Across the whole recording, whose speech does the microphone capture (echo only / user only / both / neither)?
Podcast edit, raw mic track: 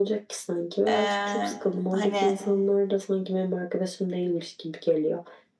both